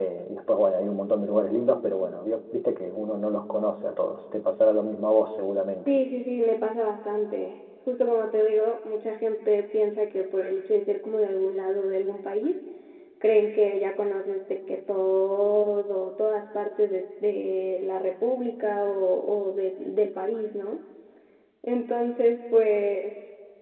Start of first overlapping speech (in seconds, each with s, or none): none